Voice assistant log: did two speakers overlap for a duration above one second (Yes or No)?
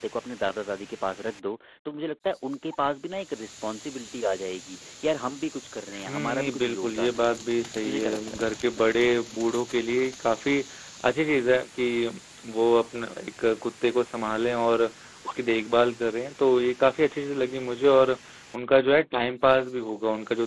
Yes